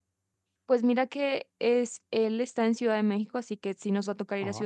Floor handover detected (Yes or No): No